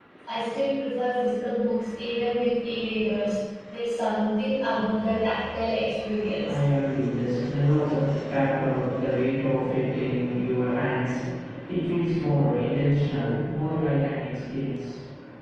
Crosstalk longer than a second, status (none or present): none